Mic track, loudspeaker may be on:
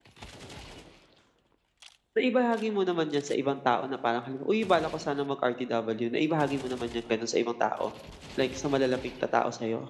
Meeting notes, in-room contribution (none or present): present